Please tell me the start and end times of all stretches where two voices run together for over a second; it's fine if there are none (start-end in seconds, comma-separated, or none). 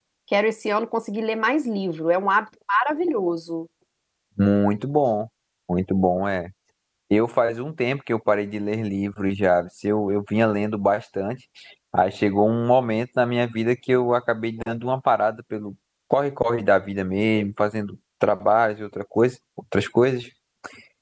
none